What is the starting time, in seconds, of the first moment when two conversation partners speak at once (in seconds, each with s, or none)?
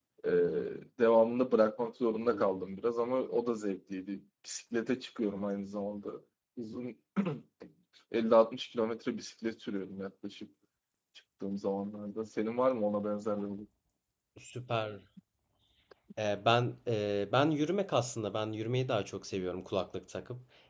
none